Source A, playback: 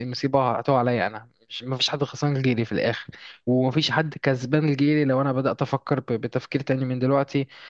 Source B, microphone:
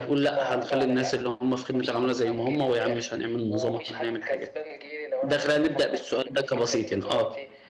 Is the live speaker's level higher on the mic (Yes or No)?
Yes